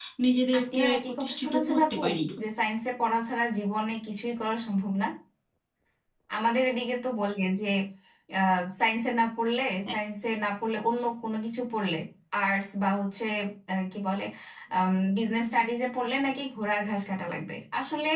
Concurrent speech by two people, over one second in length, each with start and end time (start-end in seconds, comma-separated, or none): 0.6-2.0